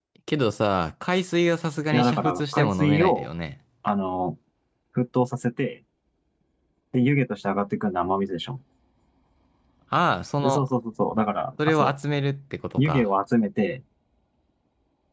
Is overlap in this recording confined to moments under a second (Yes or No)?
No